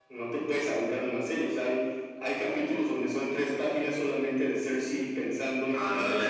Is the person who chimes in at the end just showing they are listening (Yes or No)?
Yes